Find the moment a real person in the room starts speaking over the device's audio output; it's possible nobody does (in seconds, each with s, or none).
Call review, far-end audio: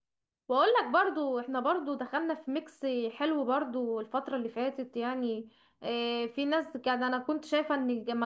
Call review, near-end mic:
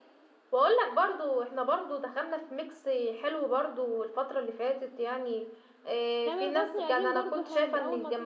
6.2 s